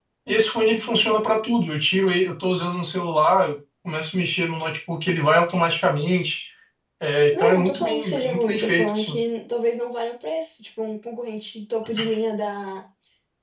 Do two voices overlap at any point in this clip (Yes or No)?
Yes